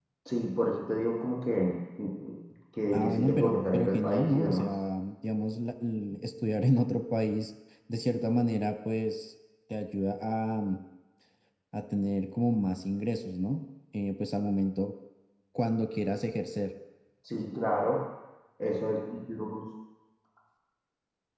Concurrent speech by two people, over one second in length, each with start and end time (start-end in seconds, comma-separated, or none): 2.9-4.7